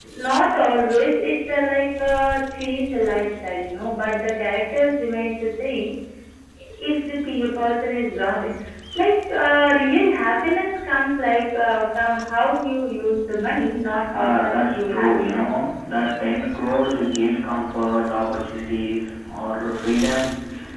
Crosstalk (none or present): present